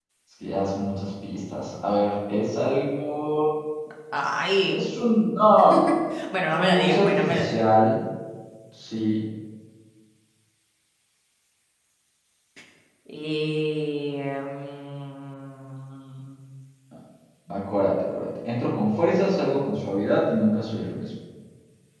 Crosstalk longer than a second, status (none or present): present